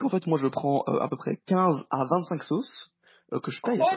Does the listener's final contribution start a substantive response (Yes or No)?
Yes